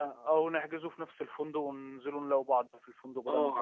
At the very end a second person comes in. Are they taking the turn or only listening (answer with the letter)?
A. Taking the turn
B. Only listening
A